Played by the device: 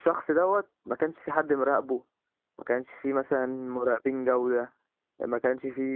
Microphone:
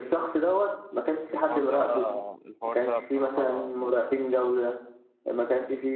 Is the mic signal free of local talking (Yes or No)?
No